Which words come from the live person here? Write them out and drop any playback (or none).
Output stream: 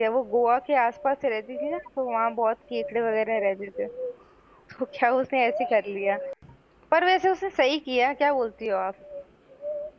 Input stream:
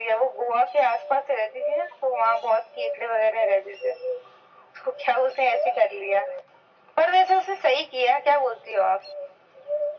none